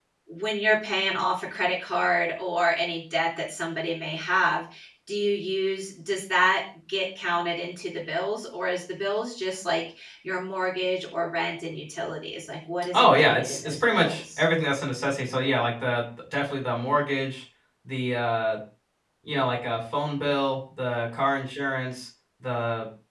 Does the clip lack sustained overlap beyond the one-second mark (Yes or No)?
No